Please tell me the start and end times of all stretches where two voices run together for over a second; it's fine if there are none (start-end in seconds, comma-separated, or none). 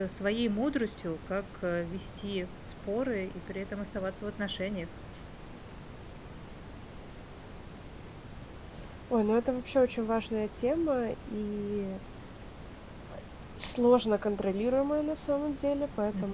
none